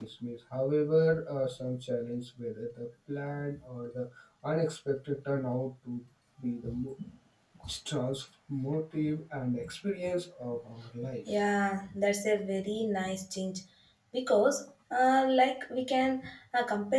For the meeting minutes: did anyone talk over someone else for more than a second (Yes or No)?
No